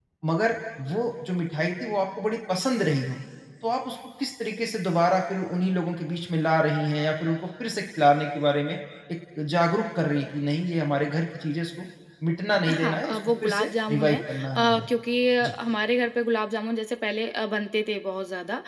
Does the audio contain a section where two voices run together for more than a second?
Yes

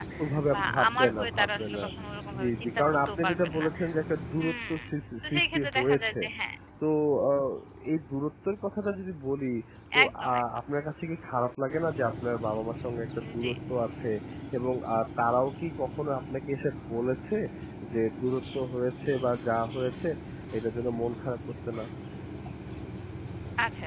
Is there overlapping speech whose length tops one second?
Yes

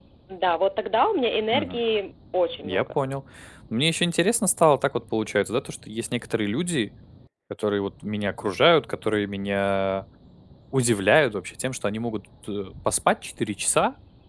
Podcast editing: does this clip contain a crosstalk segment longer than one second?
No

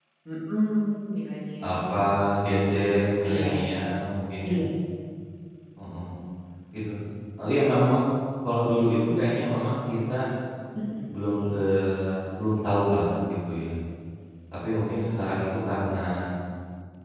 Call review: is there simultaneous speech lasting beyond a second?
No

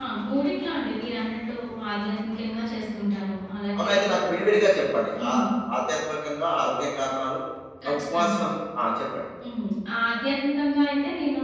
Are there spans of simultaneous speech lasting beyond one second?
No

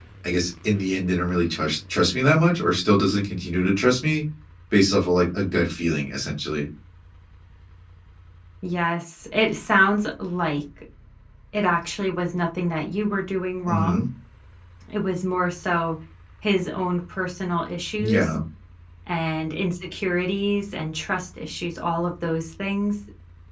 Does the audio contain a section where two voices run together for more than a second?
No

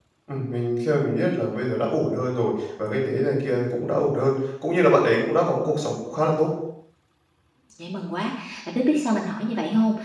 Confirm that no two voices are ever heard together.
Yes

